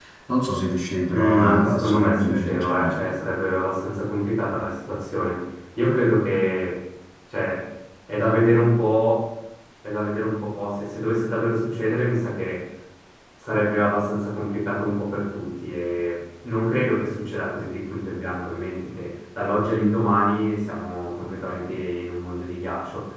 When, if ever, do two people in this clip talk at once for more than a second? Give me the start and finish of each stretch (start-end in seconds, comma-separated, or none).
1.1-3.0